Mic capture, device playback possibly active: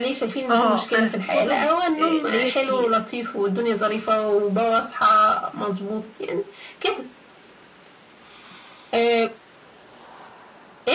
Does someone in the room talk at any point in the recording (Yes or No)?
Yes